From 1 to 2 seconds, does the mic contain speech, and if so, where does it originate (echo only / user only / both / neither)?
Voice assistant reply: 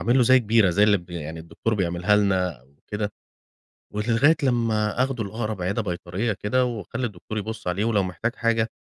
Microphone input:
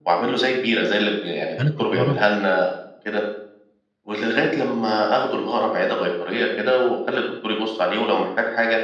both